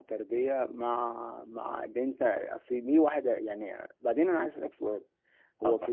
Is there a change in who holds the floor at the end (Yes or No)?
No